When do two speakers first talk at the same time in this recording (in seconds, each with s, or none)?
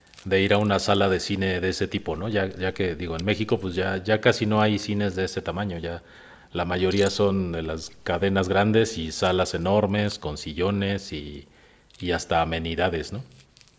none